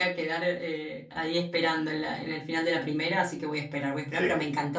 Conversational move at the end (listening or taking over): listening